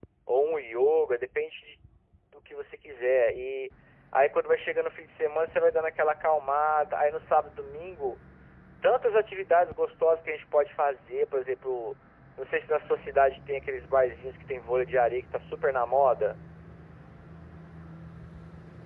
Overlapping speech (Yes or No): No